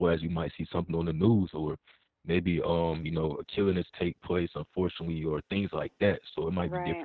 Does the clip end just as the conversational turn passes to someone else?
No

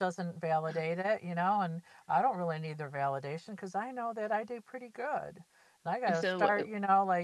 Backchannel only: Yes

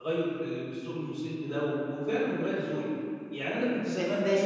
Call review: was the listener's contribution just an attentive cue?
No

